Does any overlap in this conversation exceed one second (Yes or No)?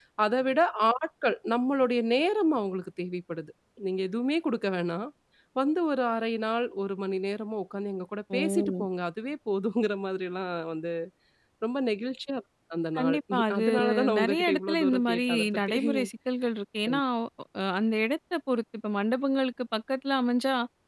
Yes